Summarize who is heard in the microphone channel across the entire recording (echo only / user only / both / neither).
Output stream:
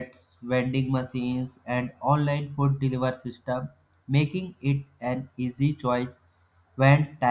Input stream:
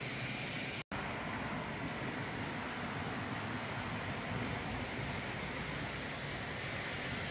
neither